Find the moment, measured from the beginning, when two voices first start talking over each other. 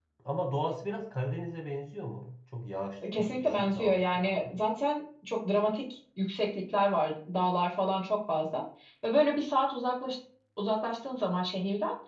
3 s

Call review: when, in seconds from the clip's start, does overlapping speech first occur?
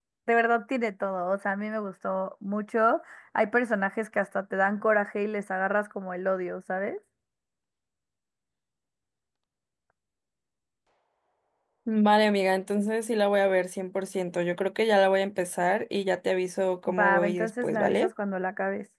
17 s

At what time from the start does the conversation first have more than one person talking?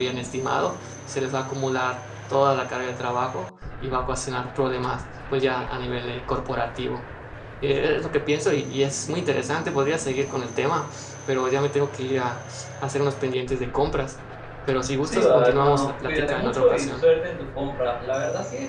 15 s

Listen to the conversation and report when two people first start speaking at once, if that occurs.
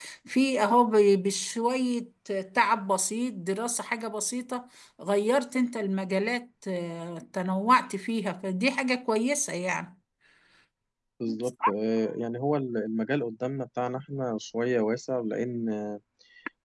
none

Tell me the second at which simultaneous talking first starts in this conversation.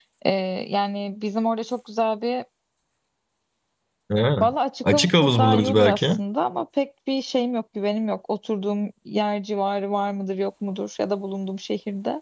5 s

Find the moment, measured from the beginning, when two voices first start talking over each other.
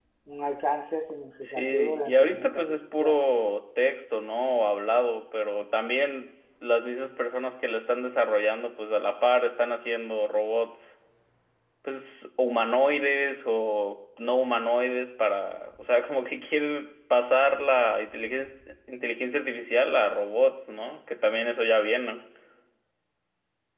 1 s

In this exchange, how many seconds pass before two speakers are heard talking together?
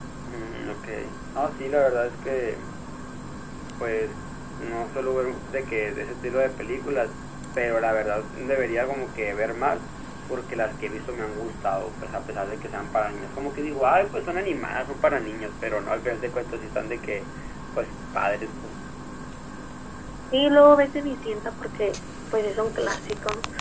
none

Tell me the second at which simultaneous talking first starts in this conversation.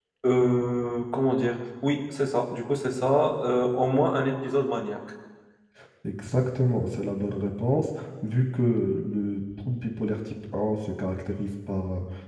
none

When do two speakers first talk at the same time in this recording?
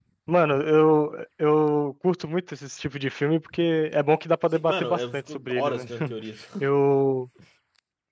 5 s

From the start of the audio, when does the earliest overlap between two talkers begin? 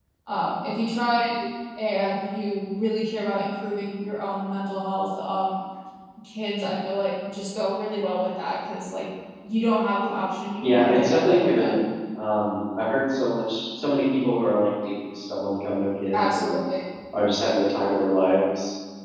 11 s

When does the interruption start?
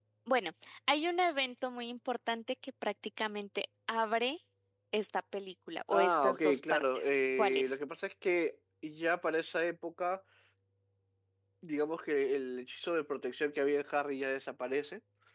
6 s

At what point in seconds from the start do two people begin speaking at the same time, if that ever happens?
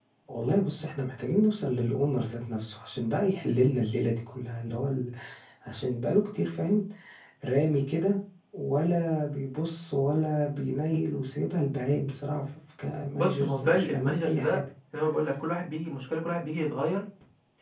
13 s

